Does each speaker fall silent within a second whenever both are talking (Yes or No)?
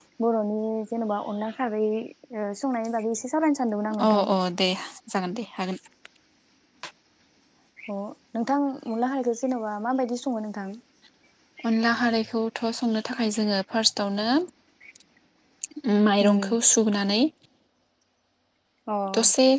Yes